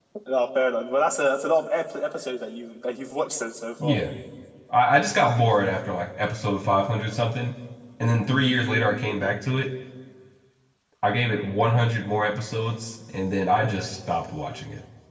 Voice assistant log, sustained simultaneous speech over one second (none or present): none